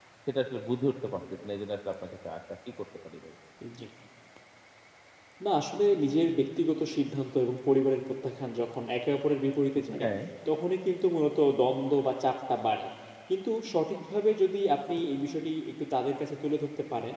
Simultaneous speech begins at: none

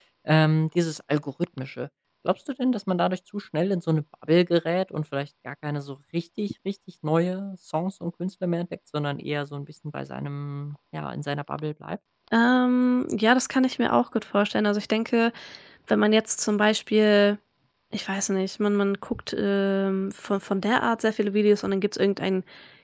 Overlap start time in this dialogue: none

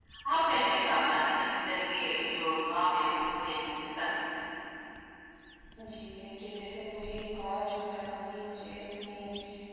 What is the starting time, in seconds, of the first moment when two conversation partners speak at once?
none

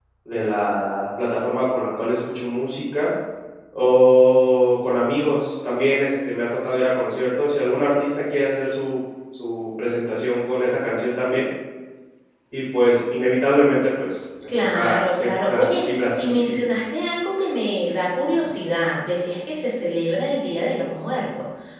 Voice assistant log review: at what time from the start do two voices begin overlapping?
14.4 s

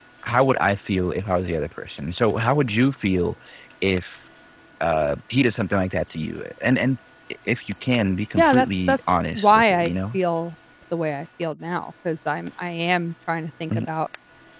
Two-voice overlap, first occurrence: 8.4 s

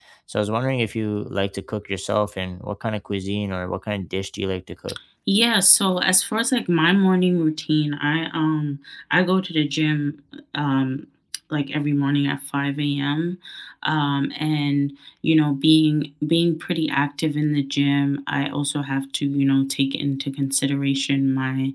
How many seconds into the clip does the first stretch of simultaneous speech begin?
none

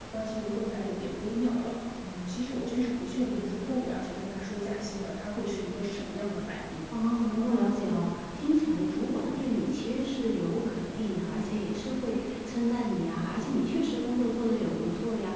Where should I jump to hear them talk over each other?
none

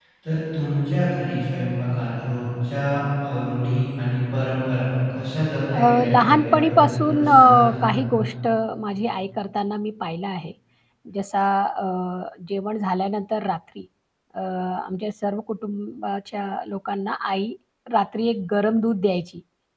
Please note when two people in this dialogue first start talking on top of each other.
5.7 s

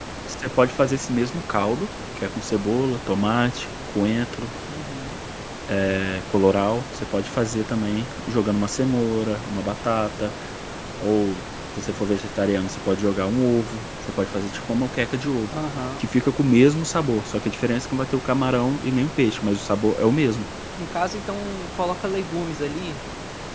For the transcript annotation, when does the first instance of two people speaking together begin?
none

